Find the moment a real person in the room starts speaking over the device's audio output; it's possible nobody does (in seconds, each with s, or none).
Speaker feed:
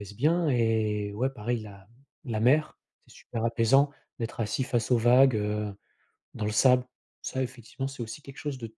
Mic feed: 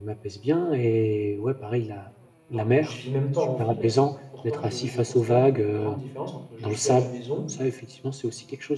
2.5 s